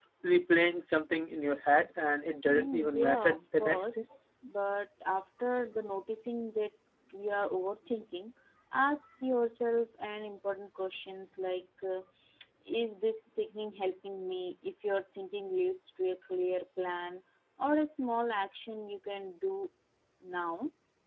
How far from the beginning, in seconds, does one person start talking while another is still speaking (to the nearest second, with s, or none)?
2 s